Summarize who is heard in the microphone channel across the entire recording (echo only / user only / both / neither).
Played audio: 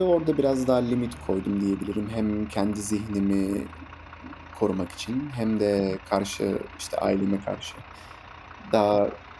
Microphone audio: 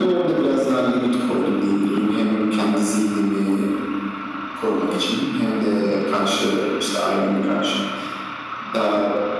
echo only